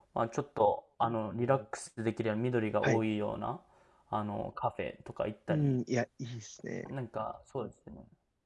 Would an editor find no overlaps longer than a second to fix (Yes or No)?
Yes